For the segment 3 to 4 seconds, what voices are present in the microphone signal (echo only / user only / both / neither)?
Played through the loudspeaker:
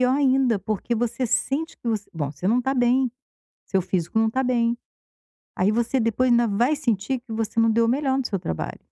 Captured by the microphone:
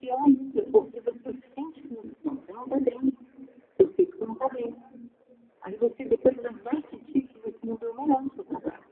echo only